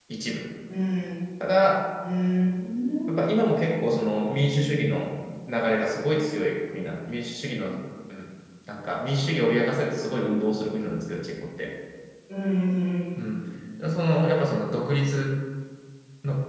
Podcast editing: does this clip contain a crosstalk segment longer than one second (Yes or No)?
No